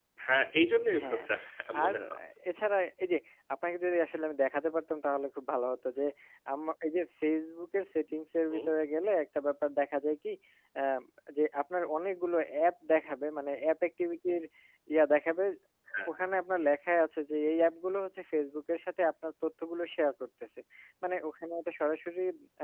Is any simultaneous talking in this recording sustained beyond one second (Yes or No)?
No